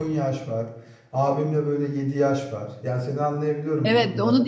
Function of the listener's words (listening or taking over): taking over